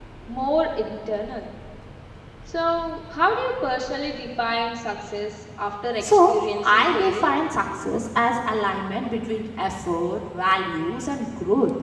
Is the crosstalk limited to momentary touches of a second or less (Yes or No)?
No